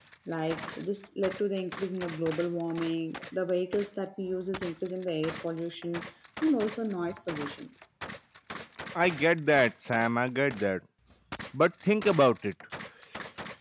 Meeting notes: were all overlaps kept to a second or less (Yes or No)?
Yes